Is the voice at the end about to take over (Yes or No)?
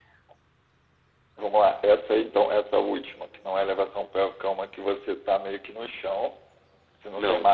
Yes